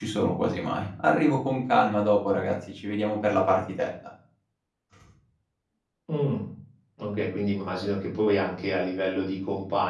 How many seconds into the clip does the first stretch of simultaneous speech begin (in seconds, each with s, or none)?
none